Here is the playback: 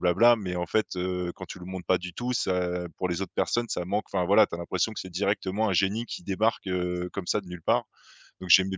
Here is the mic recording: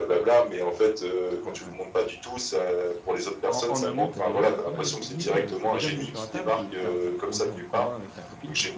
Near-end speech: present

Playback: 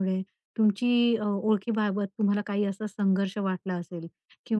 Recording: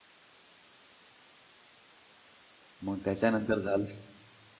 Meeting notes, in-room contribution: present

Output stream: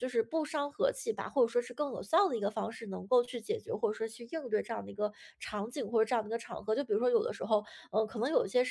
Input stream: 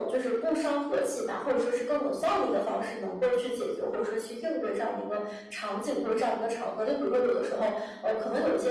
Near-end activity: none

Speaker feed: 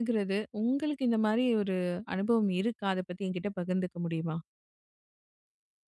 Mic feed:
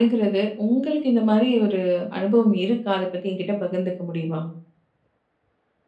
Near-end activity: none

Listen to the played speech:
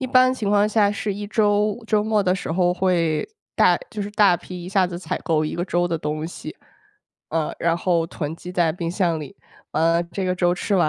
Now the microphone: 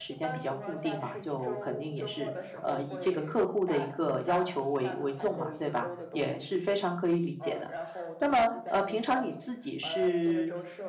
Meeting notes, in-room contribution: present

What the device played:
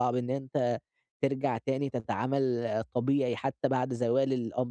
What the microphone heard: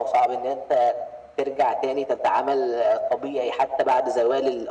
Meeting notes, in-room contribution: none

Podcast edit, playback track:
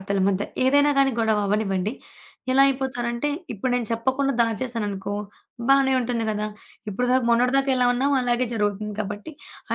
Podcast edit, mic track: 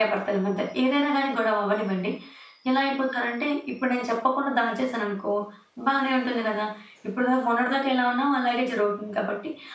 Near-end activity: none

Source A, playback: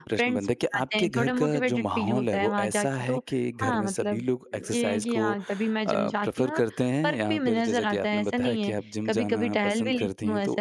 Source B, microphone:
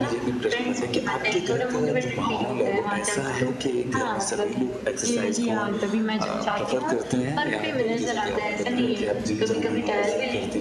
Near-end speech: none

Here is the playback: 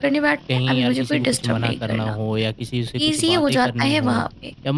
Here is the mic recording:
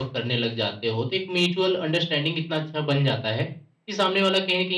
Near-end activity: present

